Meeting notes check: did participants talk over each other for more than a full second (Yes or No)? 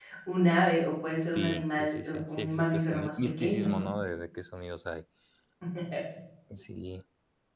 Yes